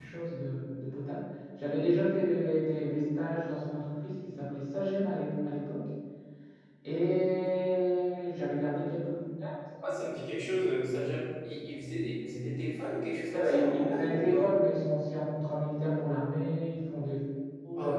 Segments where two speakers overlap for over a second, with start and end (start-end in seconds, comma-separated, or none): 13.3-14.5